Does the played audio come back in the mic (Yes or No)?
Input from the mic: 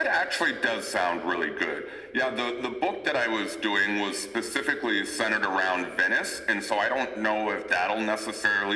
Yes